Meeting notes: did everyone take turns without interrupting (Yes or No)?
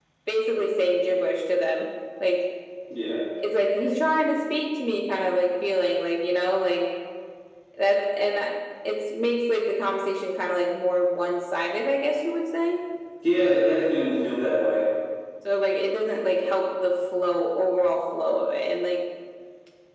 Yes